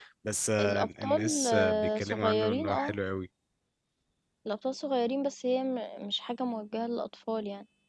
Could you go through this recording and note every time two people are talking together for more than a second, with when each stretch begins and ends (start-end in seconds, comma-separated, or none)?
0.6-3.0